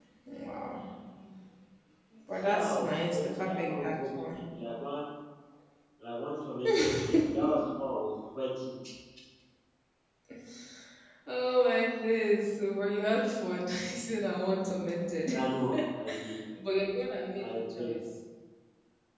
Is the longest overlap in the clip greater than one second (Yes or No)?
Yes